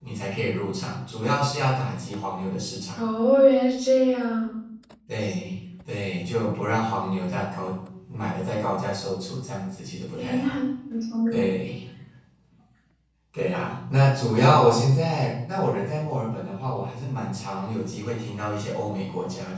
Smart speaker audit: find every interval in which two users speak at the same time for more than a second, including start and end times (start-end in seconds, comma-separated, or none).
none